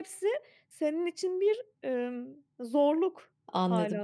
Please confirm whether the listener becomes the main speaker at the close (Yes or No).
Yes